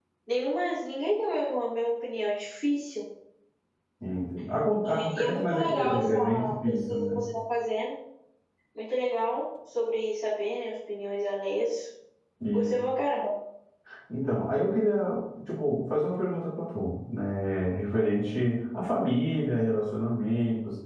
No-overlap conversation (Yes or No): No